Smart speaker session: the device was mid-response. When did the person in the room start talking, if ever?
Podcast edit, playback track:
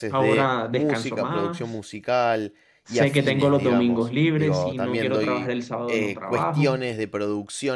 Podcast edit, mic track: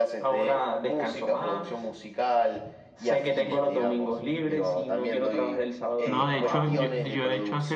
6 s

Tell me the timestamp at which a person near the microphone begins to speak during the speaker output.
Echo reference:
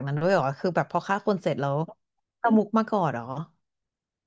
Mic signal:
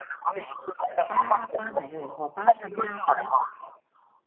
1 s

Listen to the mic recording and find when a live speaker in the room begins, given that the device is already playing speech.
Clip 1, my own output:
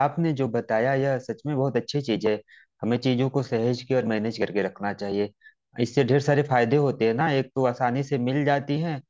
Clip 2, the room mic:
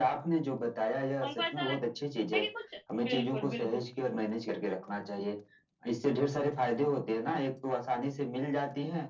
1 s

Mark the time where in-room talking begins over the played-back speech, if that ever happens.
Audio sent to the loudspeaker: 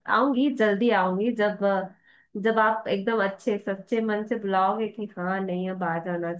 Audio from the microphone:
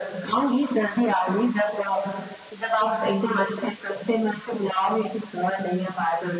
none

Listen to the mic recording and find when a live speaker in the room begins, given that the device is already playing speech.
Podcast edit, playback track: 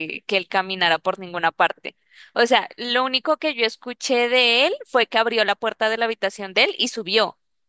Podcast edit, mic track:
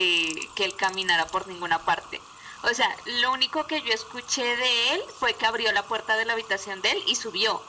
none

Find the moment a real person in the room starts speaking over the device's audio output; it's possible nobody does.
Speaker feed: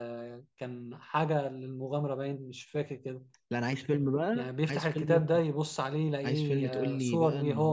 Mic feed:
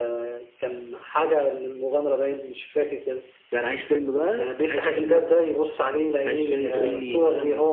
none

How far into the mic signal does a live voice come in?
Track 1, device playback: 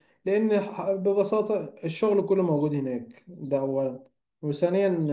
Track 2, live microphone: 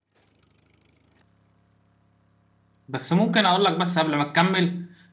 3 s

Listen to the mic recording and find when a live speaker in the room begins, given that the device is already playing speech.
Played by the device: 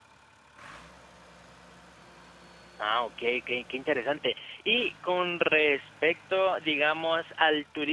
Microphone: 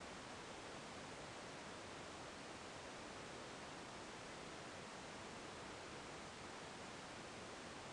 none

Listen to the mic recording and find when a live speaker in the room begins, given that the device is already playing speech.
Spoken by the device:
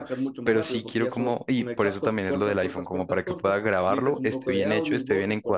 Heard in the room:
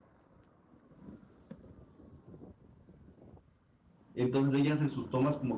4 s

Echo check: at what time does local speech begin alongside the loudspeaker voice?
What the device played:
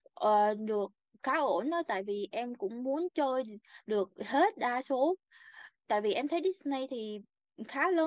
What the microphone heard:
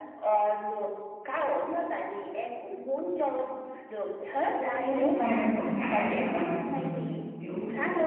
4 s

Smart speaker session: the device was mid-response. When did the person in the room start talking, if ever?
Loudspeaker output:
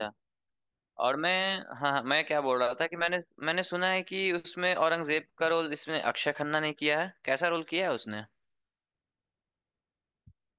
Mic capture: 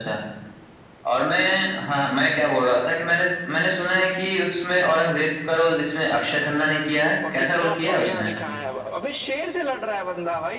7 s

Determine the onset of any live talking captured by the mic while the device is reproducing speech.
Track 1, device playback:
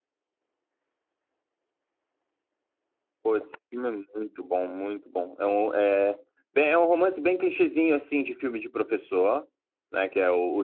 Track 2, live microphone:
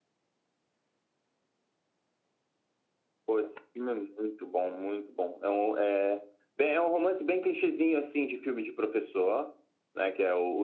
none

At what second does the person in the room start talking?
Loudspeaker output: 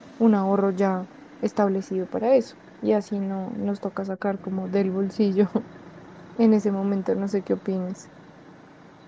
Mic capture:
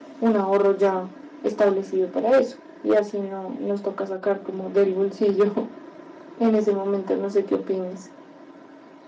none

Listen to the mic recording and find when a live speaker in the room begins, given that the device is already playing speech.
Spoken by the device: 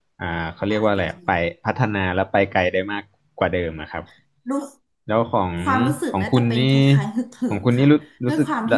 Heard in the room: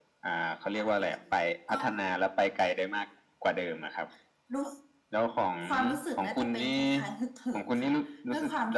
2 s

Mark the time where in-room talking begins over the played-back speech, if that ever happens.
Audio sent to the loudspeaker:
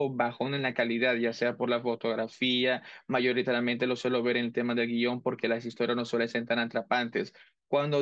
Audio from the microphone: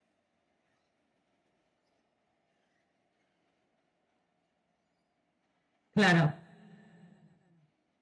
6 s

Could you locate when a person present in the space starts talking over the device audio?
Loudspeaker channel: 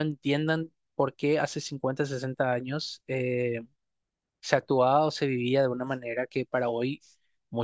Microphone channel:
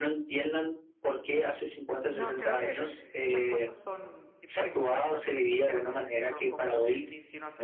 2 s

